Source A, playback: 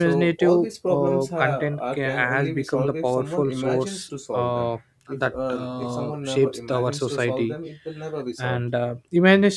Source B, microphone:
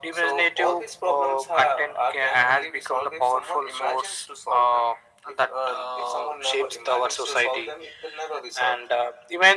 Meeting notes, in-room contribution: none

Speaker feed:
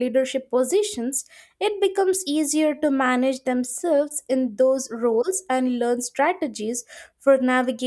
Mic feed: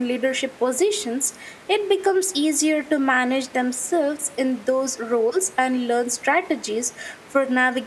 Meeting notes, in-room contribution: none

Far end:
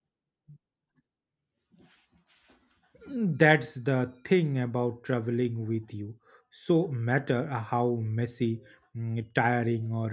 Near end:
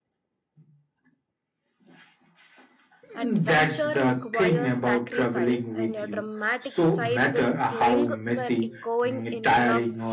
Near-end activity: present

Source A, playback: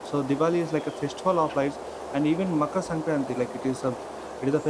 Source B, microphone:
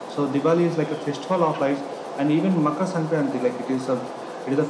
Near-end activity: none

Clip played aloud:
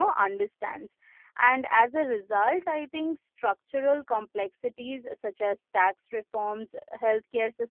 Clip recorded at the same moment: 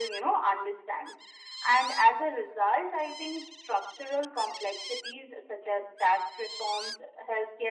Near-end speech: none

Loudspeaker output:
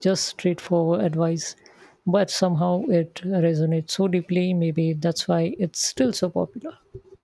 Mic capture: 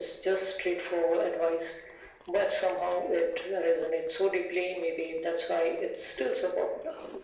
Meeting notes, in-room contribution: none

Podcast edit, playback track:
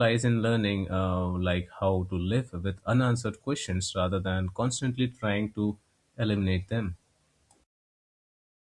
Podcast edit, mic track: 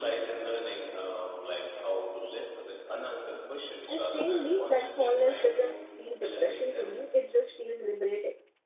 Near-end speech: present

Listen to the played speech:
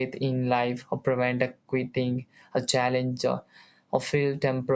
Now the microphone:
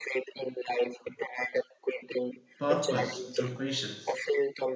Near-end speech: present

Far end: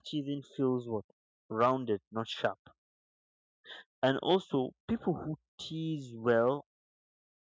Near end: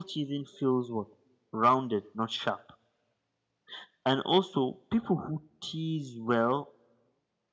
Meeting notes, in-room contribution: none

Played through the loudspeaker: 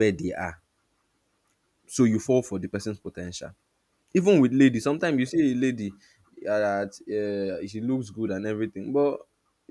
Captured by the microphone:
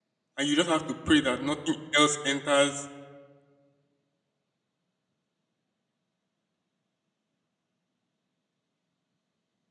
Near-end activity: present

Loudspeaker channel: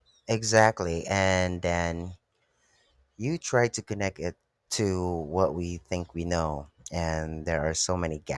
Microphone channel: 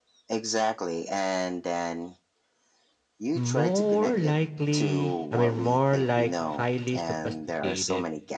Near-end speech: present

